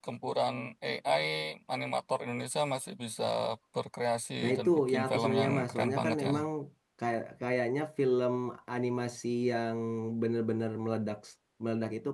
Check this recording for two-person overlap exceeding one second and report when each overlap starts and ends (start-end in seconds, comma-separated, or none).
4.4-6.3